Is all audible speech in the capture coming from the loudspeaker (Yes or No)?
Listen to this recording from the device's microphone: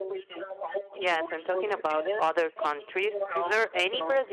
No